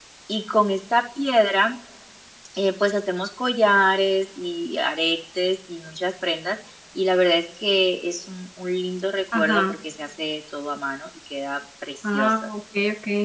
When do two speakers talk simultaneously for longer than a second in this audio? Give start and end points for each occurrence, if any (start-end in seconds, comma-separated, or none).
none